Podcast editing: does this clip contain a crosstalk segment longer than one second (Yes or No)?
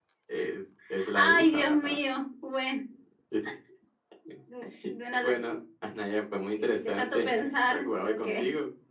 Yes